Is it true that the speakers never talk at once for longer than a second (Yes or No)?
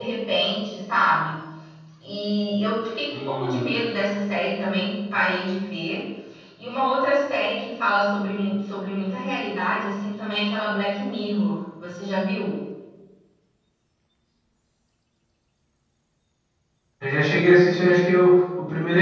Yes